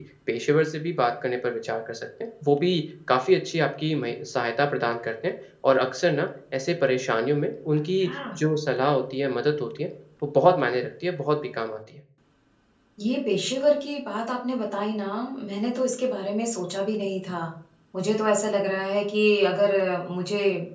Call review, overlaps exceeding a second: none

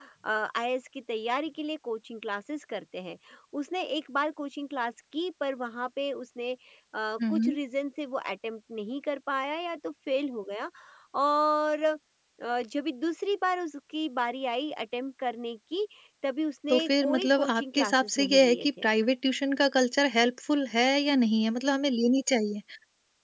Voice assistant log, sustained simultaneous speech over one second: present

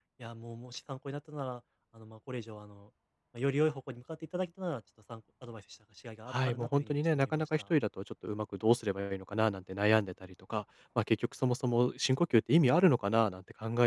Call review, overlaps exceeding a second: present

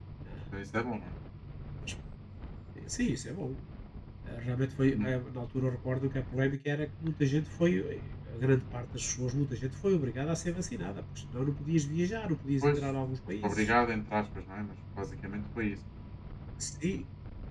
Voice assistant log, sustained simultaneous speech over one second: none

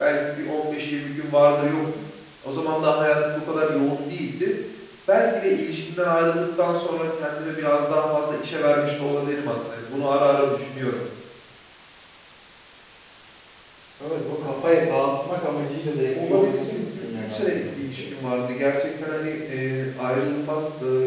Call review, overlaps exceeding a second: present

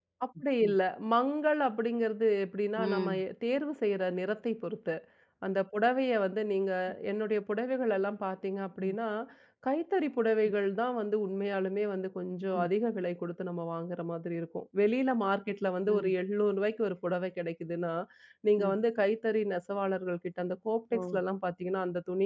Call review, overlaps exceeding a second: none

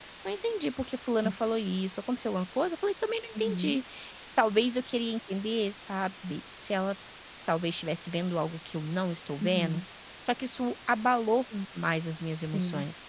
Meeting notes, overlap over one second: none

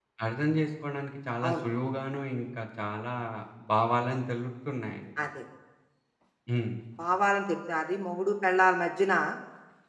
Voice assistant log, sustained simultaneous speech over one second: none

